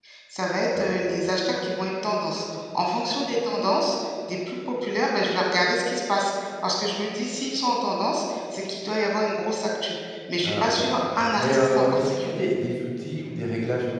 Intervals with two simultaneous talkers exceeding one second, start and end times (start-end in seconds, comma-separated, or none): 10.4-12.4